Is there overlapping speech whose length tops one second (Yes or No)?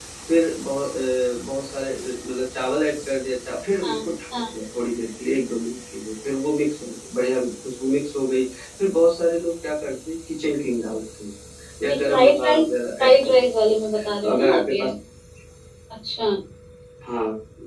Yes